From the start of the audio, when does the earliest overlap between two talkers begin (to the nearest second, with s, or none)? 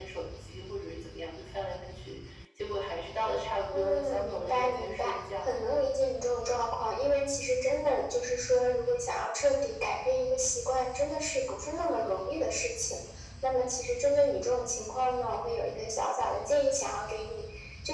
4 s